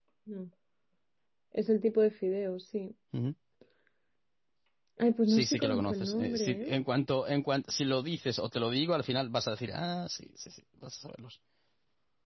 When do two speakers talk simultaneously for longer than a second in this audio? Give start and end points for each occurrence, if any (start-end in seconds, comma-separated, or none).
5.3-6.7